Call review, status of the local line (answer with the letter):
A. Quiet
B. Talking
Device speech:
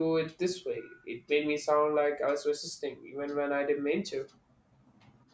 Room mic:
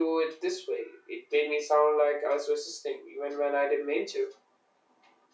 A